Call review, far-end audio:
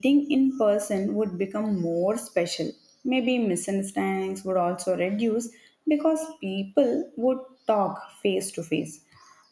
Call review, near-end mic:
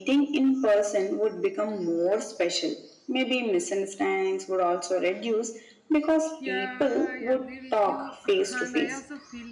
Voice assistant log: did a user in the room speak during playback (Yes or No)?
Yes